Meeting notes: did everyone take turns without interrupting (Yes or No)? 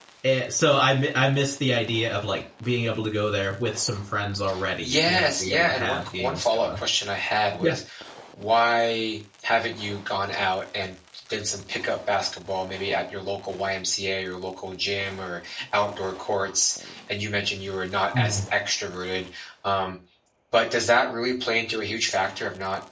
No